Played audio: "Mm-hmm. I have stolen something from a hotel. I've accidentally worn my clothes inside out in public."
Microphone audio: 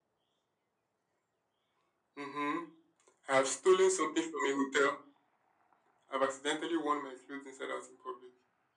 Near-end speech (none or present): none